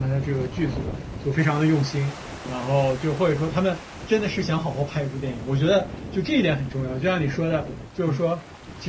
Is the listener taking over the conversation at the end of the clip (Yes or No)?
No